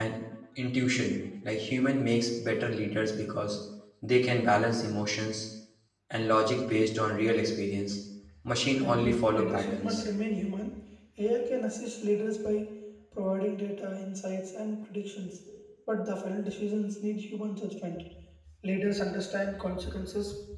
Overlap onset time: 8.8 s

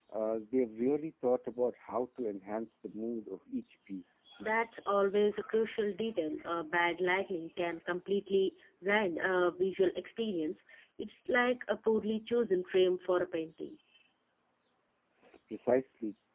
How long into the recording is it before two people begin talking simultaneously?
none

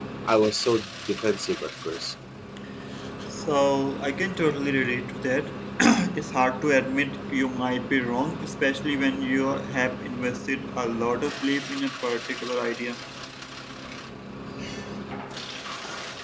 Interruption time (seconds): none

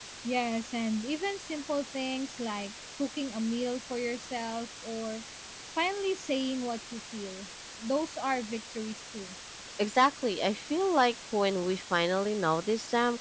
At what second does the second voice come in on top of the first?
none

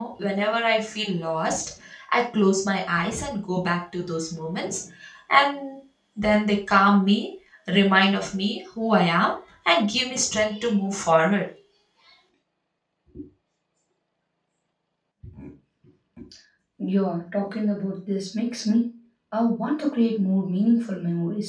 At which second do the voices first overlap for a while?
none

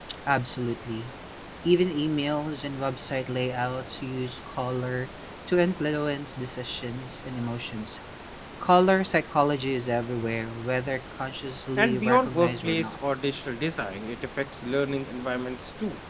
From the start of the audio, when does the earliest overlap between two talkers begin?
11.8 s

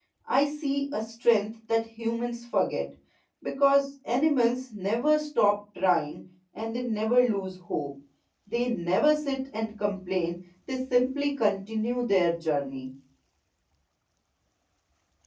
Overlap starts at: none

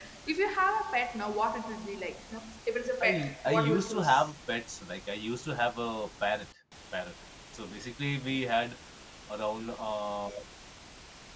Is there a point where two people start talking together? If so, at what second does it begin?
3.0 s

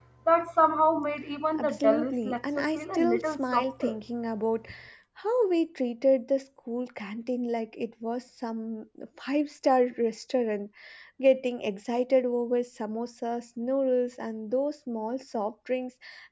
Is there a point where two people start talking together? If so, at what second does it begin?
1.6 s

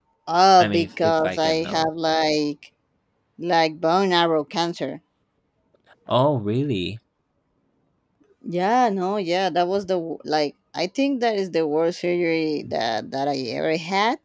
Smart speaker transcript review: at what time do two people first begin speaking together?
0.6 s

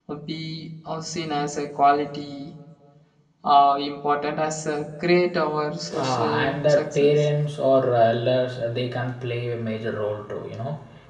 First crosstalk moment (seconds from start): 5.9 s

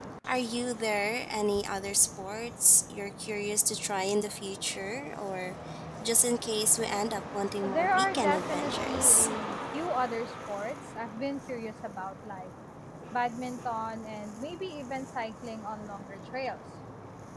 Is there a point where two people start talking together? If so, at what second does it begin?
7.6 s

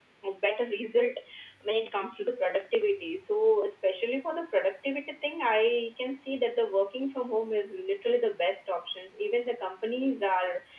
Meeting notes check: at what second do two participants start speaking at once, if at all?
none

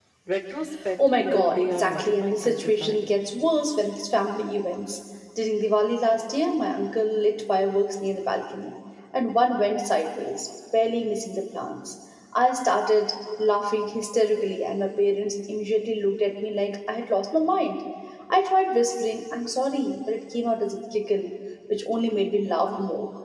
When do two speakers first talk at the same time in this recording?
1.2 s

